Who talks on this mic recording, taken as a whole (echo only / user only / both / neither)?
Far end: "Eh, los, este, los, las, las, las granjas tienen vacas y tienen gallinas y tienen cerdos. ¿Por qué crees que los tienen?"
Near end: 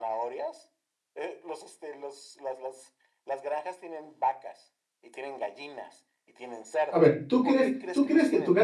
both